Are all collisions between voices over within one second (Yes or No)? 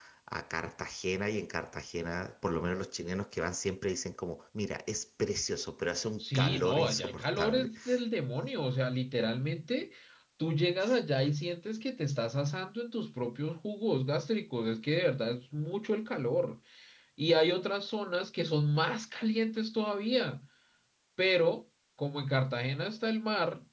No